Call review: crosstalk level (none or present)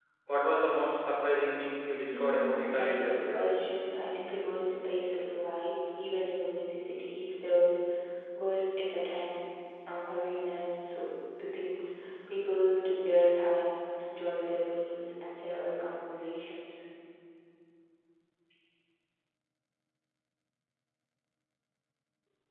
present